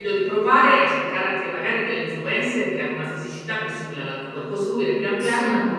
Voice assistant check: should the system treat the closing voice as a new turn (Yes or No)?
No